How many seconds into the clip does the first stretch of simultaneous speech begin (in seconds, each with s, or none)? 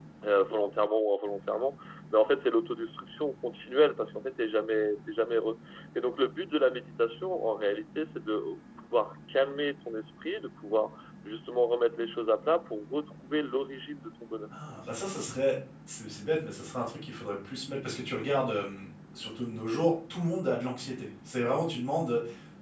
none